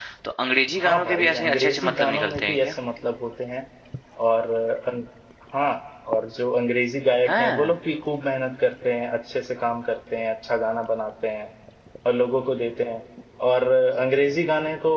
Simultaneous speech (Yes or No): Yes